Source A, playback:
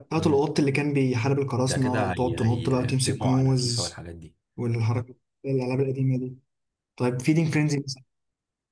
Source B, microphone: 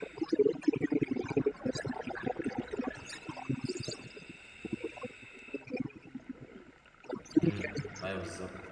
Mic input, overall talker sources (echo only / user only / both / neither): both